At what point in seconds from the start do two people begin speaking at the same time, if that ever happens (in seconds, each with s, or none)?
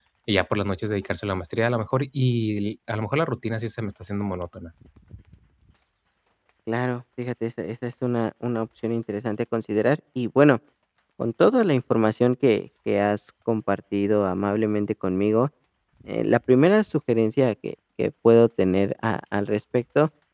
none